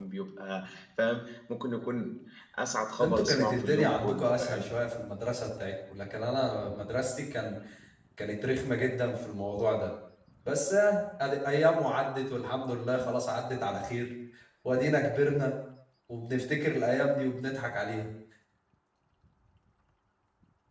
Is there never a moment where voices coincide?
No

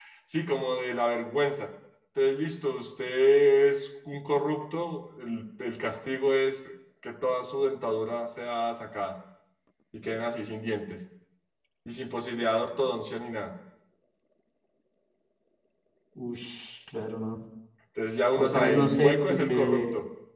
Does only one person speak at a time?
No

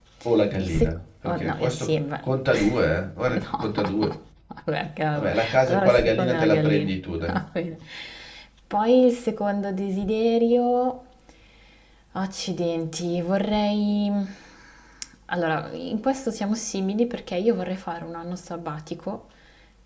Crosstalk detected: Yes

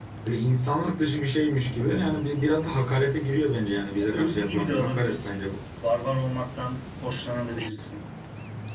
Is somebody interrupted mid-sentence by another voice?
Yes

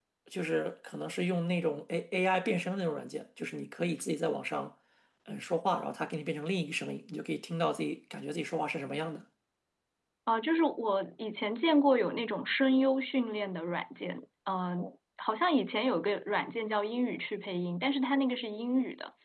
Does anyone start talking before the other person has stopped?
No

